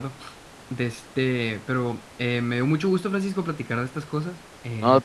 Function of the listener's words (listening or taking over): listening